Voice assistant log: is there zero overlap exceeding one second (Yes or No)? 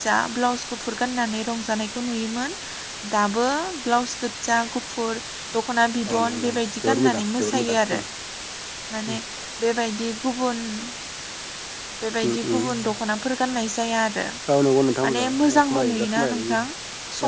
No